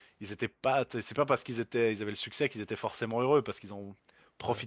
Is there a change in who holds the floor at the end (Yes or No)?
No